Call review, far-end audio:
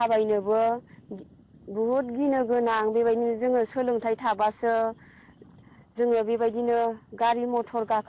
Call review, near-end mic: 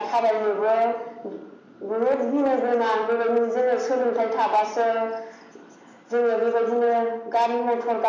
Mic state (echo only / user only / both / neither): echo only